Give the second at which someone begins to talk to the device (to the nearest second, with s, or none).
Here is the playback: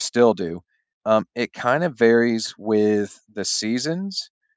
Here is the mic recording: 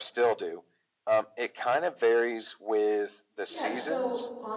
3 s